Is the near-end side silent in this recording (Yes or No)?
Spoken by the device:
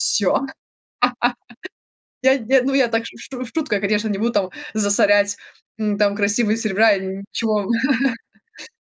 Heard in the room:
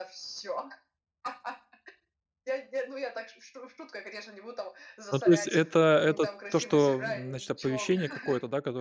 No